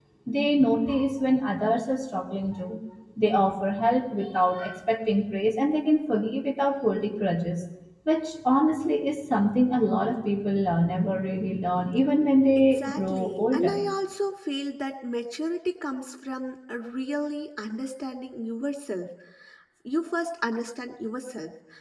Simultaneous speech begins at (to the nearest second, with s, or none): 13 s